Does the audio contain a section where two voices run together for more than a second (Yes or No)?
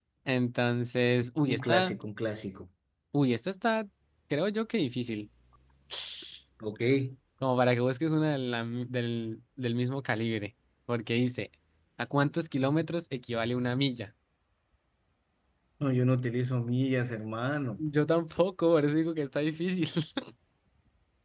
No